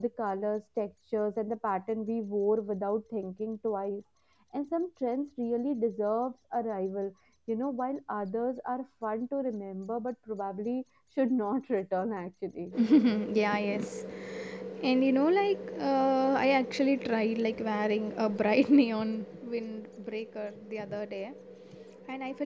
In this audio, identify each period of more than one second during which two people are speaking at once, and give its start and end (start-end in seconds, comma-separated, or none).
none